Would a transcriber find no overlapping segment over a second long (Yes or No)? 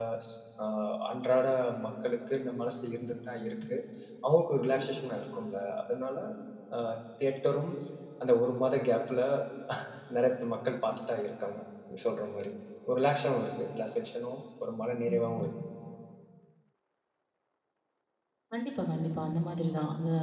Yes